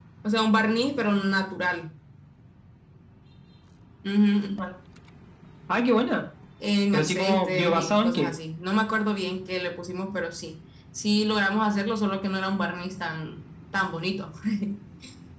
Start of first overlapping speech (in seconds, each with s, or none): 6.9 s